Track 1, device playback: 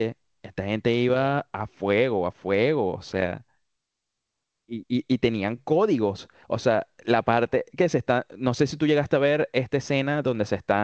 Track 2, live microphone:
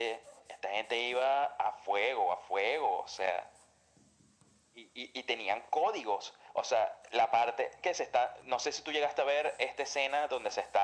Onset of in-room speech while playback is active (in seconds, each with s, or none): none